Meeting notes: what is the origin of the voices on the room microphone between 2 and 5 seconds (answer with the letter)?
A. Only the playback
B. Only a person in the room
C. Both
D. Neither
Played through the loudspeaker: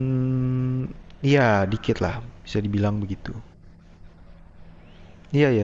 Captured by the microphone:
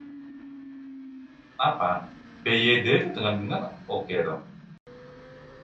B